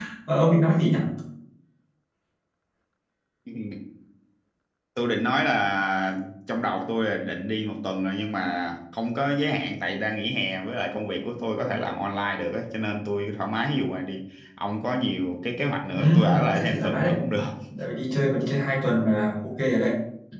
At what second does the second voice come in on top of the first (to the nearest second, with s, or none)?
16 s